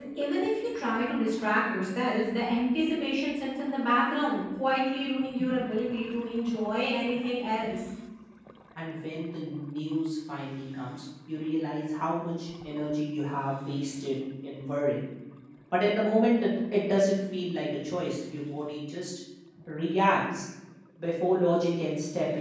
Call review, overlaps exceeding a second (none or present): none